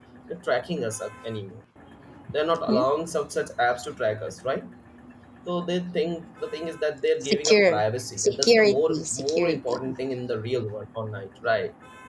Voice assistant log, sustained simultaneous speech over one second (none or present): present